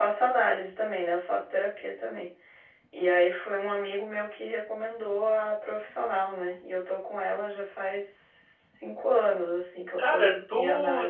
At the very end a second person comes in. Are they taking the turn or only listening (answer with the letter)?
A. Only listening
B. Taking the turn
B